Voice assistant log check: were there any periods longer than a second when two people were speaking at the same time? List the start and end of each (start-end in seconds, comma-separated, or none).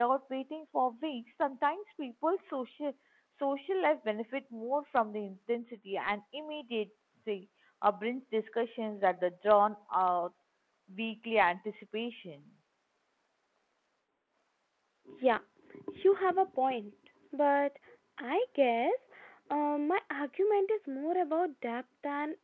none